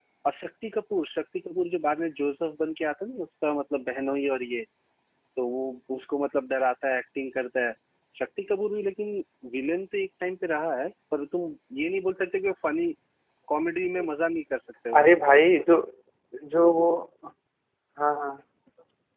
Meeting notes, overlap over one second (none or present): none